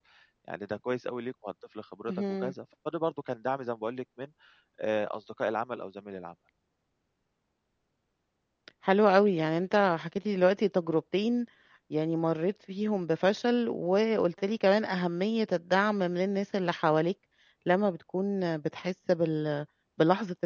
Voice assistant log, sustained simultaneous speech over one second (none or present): none